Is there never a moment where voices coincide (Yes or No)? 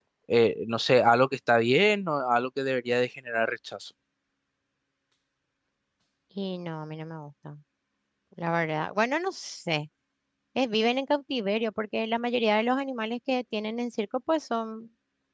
Yes